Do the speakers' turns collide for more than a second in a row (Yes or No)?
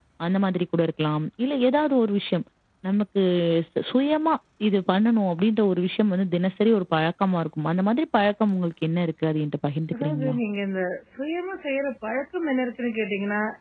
No